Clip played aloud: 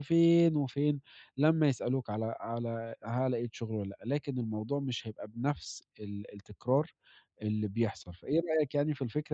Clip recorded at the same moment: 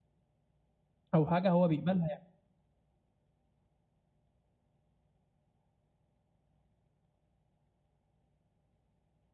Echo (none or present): none